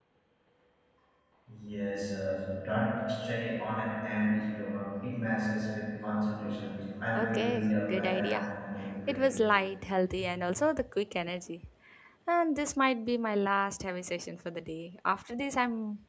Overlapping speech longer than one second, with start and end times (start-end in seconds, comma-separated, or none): 7.2-8.5